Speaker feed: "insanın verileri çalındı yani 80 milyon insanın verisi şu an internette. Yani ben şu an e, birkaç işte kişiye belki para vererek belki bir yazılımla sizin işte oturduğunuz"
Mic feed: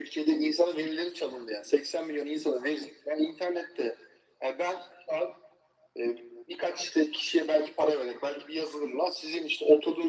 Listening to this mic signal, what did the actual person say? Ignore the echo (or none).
none